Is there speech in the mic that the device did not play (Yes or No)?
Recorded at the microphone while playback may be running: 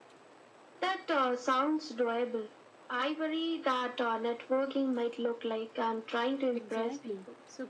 Yes